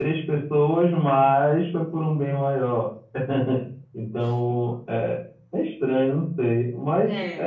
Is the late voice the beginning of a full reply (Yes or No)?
No